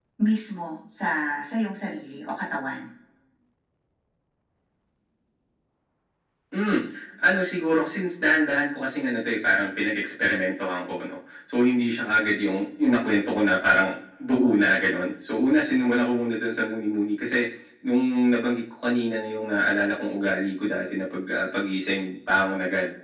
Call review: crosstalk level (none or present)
none